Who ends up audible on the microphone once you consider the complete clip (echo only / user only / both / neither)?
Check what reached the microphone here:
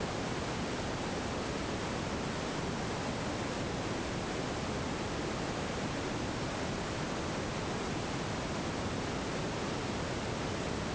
neither